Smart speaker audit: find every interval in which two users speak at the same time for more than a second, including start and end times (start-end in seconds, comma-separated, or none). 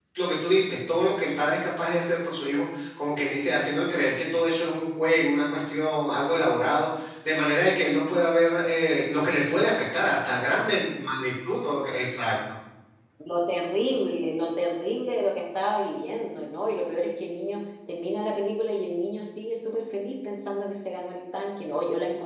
none